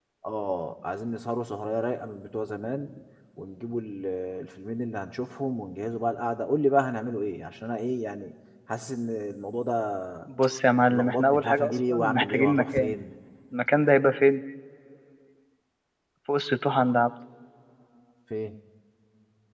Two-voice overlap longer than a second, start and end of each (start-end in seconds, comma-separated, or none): 10.9-12.9